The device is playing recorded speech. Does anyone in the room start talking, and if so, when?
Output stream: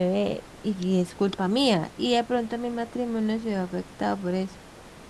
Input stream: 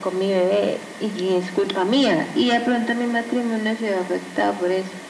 none

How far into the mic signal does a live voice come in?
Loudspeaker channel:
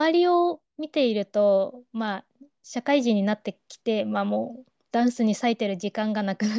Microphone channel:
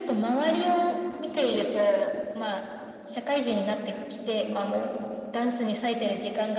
none

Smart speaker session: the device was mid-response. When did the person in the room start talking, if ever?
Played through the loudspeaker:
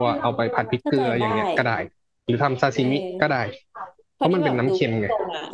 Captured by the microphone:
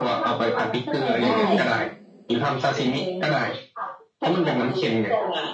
1 s

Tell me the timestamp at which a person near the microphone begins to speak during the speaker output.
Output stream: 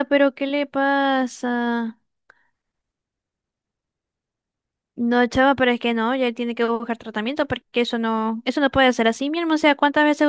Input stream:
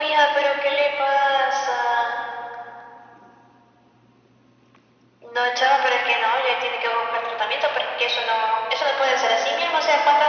none

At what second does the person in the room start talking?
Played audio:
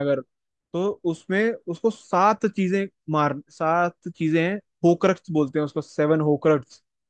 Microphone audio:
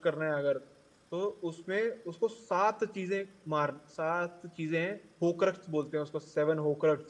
none

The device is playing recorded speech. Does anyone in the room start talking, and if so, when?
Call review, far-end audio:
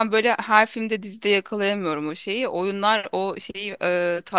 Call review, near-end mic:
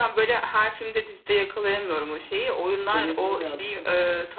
3 s

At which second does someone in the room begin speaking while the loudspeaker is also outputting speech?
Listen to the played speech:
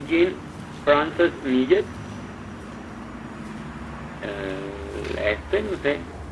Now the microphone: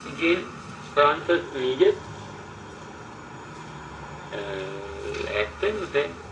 none

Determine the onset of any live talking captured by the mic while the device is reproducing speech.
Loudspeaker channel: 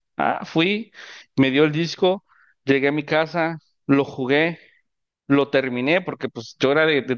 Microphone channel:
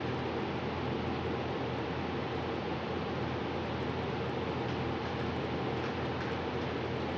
none

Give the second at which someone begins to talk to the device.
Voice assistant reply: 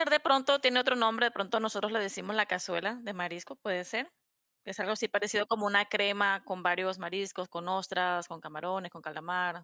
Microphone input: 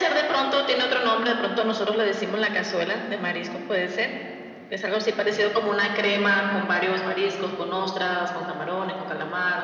none

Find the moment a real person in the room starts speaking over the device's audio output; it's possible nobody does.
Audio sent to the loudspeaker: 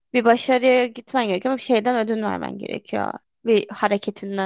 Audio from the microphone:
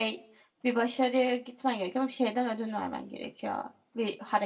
none

